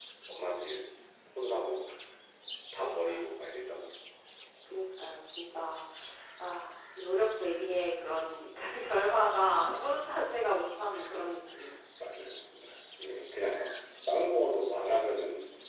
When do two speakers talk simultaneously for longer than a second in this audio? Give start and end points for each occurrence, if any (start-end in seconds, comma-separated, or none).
none